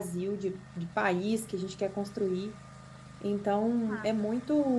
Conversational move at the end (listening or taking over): listening